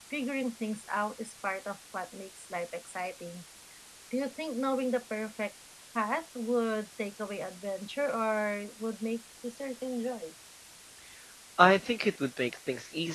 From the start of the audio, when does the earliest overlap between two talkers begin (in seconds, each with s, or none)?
none